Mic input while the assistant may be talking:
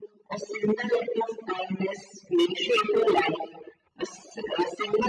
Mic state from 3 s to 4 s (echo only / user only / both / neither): echo only